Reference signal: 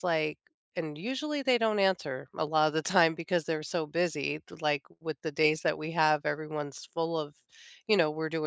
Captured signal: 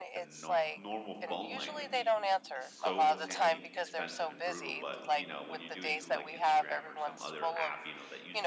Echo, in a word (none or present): present